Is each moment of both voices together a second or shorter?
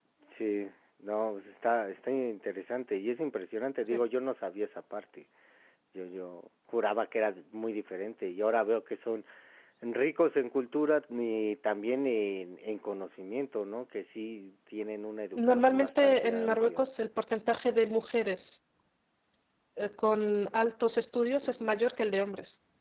No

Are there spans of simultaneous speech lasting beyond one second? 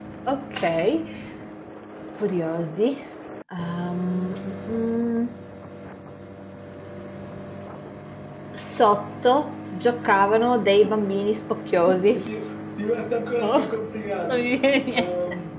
No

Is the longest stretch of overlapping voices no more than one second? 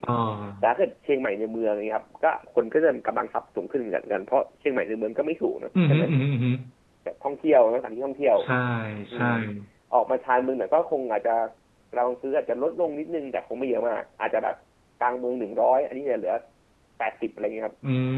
Yes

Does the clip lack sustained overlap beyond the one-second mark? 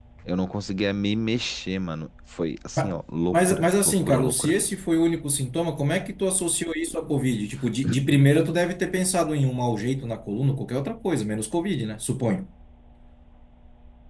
No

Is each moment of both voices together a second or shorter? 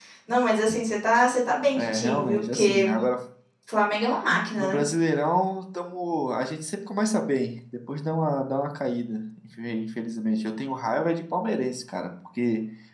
No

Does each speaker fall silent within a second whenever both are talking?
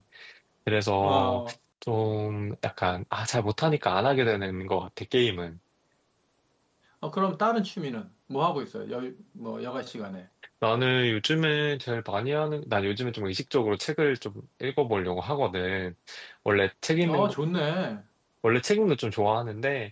Yes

